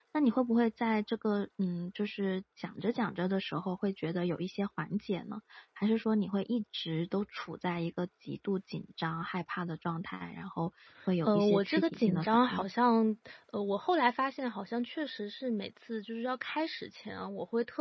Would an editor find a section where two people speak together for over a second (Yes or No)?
Yes